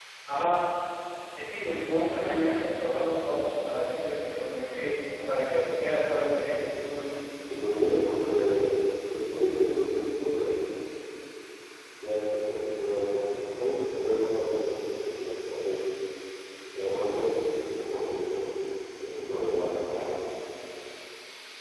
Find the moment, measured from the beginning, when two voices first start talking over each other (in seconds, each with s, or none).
none